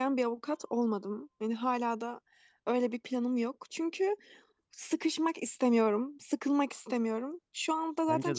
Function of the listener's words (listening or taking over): listening